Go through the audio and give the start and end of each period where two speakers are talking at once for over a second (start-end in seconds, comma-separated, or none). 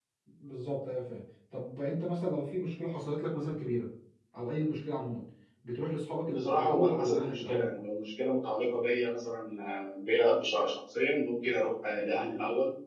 6.3-7.7